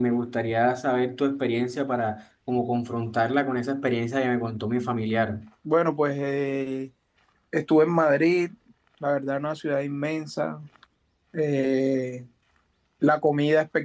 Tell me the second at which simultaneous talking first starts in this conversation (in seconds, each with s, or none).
none